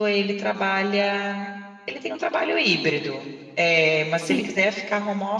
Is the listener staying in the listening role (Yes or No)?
Yes